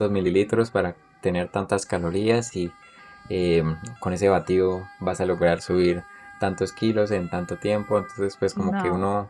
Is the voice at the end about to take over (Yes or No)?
No